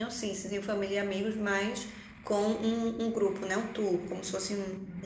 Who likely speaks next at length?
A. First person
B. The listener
B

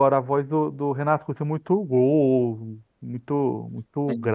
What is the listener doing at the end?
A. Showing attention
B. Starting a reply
A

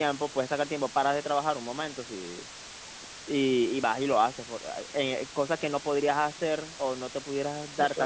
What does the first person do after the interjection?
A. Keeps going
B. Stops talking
A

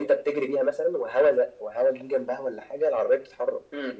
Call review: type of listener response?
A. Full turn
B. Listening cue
A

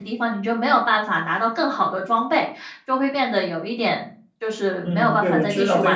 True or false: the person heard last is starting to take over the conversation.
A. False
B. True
B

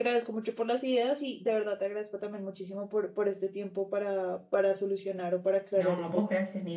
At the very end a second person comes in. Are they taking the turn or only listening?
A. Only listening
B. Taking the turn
B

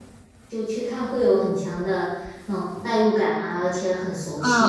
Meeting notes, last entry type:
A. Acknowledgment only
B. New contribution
B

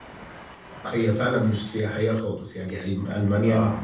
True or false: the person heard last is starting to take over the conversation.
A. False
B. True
A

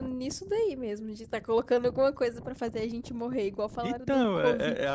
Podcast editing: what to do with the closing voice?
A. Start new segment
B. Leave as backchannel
A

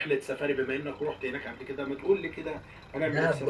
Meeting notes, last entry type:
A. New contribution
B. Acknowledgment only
A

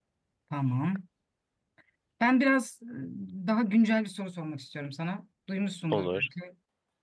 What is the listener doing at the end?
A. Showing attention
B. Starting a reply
A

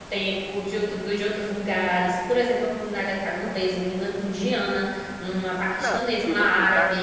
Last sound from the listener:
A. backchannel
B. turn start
B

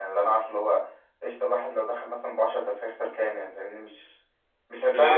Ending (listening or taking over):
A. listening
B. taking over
A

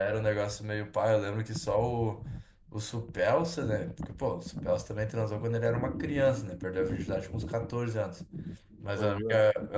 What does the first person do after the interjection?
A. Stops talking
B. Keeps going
B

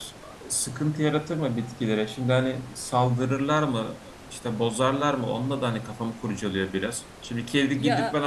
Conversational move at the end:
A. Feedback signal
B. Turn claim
A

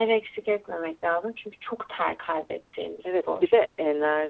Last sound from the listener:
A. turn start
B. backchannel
A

